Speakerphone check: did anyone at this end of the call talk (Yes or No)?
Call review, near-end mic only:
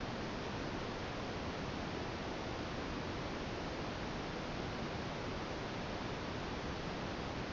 No